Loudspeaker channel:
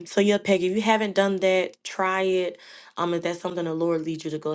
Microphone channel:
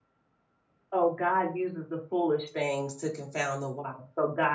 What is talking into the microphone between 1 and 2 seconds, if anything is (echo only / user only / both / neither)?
user only